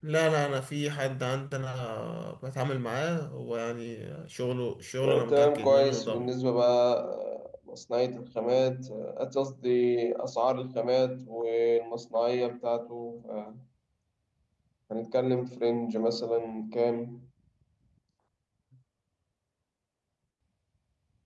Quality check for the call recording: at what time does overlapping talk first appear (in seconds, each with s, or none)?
5.0 s